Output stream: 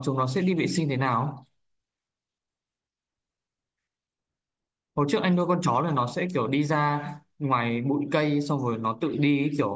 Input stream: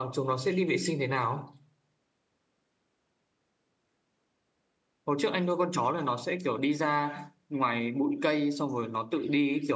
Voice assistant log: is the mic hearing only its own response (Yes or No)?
Yes